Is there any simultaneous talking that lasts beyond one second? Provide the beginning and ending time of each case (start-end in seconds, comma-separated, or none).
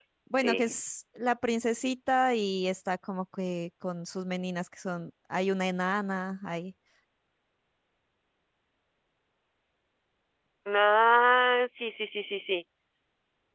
none